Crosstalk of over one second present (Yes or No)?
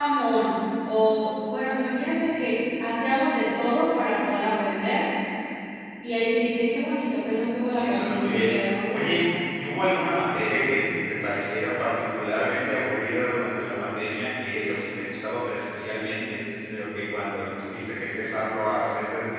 Yes